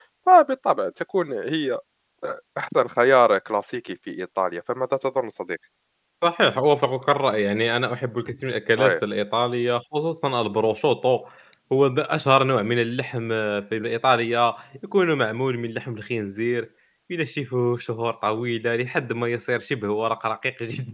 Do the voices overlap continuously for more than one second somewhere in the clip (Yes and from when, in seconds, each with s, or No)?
No